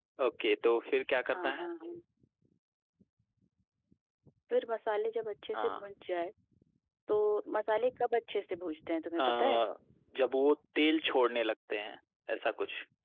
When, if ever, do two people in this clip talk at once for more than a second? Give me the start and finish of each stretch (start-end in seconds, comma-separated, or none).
none